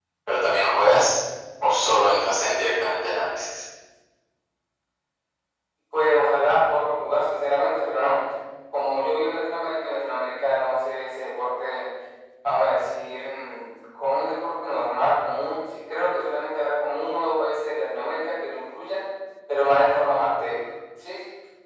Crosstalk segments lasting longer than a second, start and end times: none

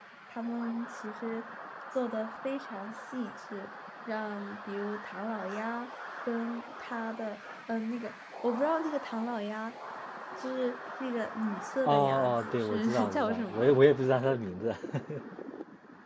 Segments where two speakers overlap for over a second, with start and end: 11.8-13.8

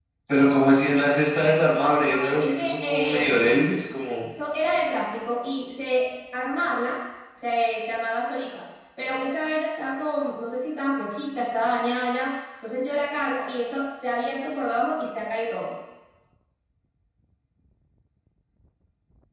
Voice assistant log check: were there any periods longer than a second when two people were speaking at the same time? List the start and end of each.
2.0-3.5

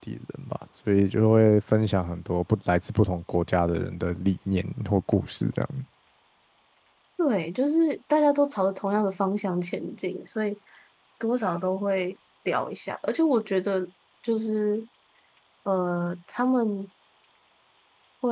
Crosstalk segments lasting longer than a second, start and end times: none

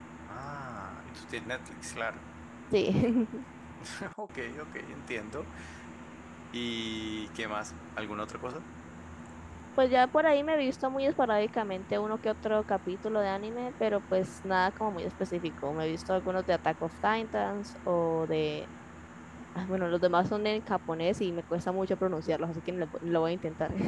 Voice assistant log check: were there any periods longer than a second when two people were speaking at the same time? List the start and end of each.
none

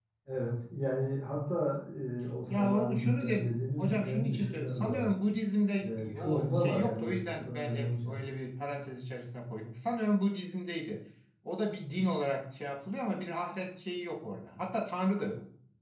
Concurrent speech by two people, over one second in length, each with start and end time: 2.5-5.1, 5.8-8.2

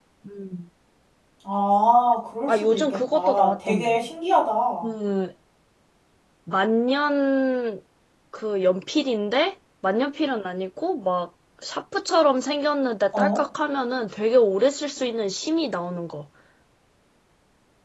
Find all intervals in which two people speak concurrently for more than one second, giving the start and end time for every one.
2.5-4.0

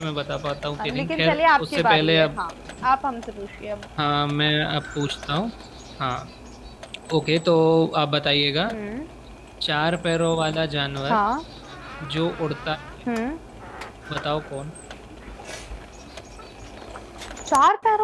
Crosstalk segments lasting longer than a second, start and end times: 0.8-2.4

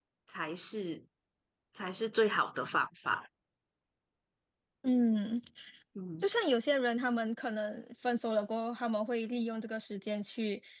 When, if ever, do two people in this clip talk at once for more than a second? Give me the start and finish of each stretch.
none

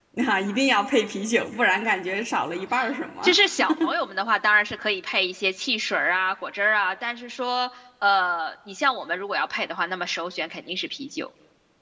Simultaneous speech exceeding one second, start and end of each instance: none

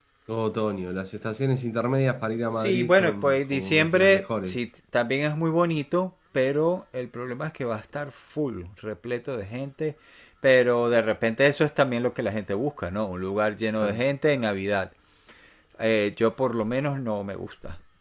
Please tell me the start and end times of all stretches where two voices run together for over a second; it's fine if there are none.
2.5-4.6

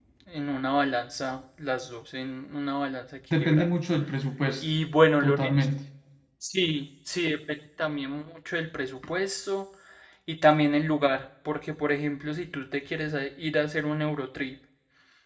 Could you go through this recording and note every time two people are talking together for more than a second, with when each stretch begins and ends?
none

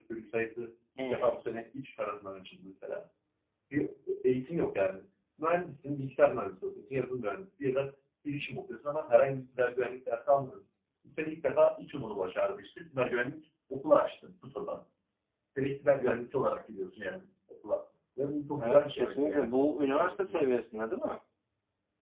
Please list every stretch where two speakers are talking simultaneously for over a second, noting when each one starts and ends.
18.6-20.5

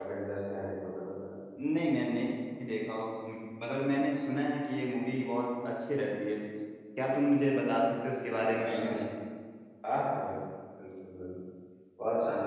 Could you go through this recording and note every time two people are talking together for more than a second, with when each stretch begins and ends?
none

